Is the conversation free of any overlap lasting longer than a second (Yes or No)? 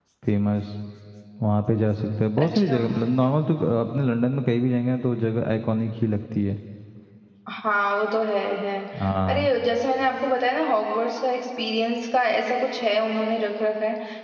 Yes